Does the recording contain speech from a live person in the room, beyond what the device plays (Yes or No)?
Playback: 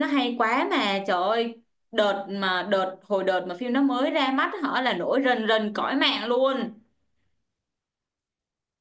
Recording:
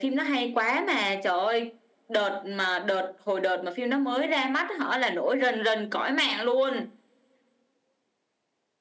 No